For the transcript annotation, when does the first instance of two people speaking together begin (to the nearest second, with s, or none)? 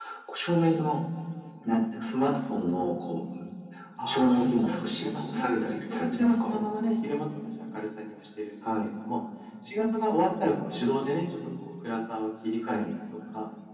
4 s